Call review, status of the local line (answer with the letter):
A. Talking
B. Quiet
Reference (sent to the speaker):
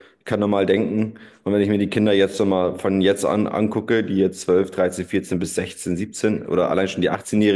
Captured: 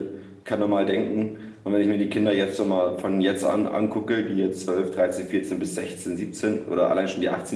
B